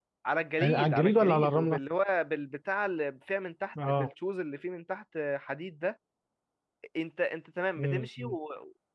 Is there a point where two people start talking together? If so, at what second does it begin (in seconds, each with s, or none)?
0.6 s